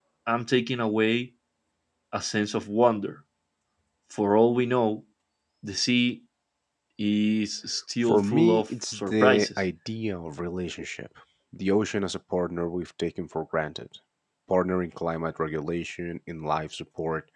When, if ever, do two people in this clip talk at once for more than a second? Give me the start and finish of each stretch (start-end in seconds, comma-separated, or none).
8.0-9.6